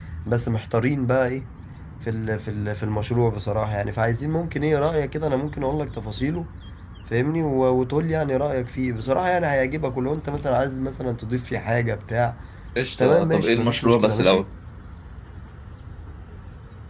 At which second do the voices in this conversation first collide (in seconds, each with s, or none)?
13.0 s